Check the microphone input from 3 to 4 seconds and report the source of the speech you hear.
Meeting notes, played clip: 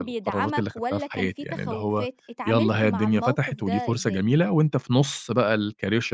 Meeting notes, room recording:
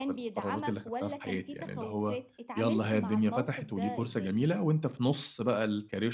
echo only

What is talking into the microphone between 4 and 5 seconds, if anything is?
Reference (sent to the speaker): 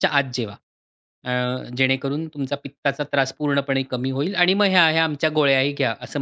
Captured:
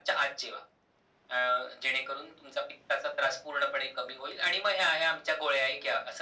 echo only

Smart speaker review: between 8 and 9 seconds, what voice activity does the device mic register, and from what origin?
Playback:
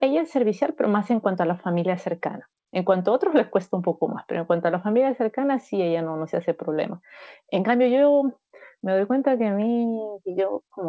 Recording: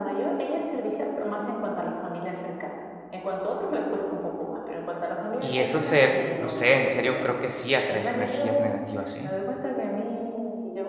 both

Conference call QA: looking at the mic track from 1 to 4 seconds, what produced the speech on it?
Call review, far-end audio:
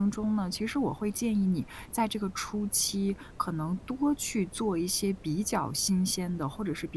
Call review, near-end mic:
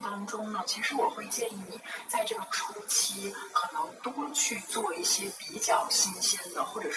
echo only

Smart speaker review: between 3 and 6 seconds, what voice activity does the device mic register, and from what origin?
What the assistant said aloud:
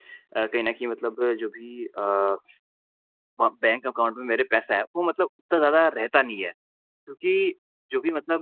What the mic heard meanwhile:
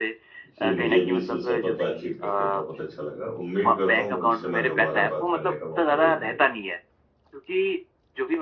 both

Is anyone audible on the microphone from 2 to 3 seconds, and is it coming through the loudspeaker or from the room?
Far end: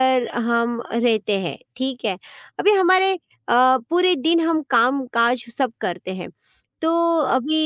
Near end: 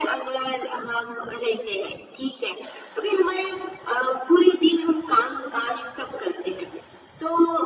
echo only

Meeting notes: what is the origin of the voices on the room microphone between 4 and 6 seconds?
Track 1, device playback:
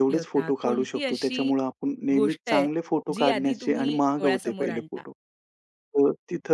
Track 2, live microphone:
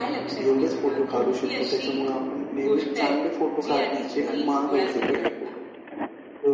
echo only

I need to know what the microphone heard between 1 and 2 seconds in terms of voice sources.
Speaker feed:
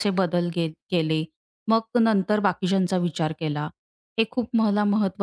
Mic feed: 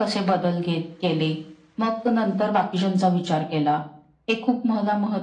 echo only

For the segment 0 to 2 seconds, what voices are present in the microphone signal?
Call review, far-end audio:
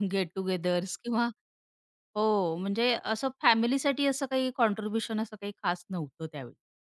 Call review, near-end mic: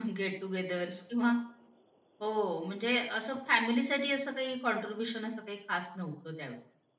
echo only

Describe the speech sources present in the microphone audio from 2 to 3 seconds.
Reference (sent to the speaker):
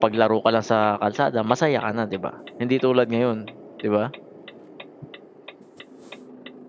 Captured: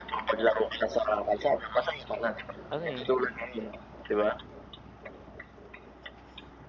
both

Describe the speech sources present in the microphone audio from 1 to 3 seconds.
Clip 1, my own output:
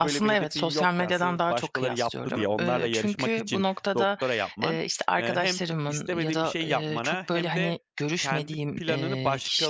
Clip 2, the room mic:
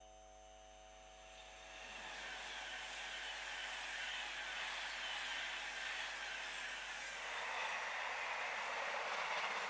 neither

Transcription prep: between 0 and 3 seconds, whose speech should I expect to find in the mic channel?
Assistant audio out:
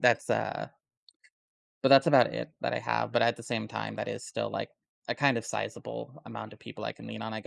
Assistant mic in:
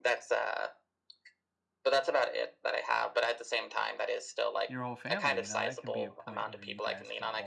echo only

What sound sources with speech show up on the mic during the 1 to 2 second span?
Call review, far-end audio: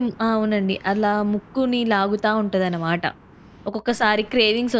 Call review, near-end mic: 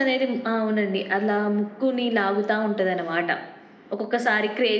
echo only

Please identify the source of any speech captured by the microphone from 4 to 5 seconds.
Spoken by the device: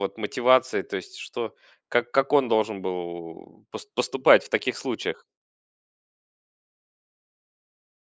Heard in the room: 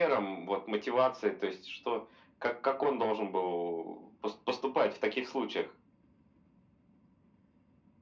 echo only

